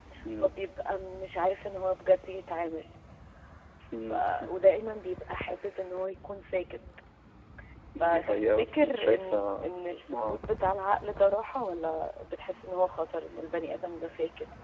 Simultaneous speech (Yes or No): Yes